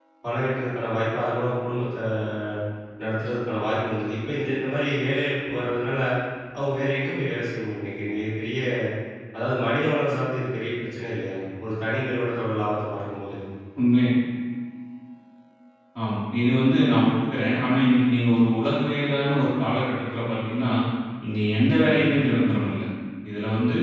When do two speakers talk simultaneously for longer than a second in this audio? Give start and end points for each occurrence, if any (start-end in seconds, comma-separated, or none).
none